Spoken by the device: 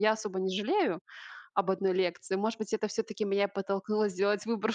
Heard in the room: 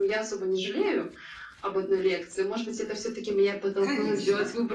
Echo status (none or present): present